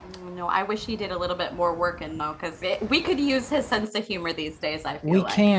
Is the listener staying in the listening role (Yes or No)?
No